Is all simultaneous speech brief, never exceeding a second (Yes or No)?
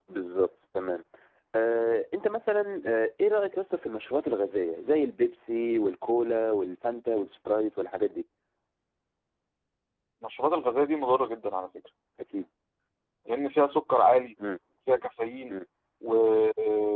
Yes